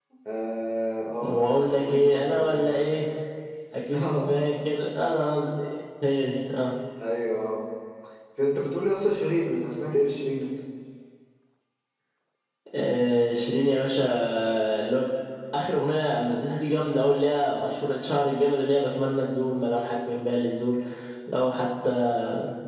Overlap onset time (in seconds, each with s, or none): 1.2 s